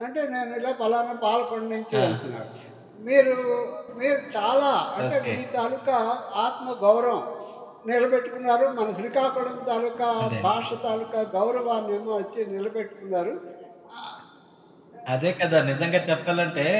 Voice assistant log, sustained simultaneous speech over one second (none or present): none